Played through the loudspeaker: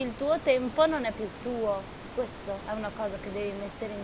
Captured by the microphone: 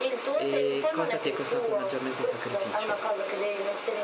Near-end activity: present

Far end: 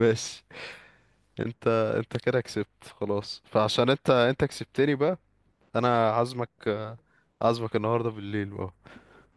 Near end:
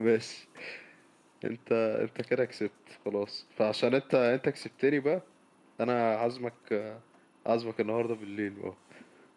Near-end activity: none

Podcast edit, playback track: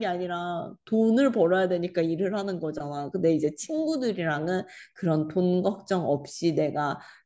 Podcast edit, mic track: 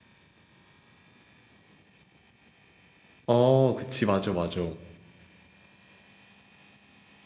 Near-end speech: present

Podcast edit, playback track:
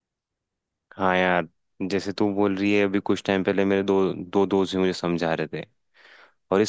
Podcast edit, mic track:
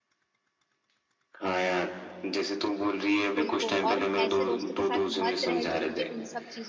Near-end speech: present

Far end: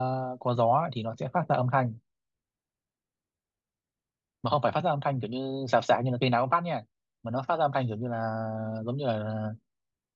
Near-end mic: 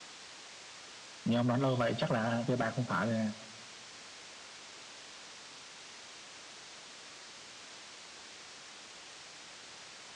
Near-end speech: present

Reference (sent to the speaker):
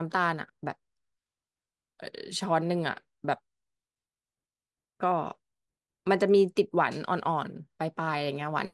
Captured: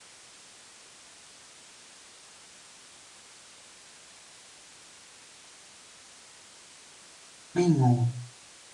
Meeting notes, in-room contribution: present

